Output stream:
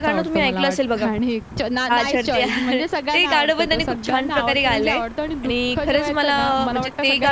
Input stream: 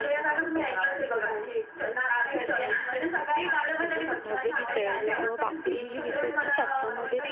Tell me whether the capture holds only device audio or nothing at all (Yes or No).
No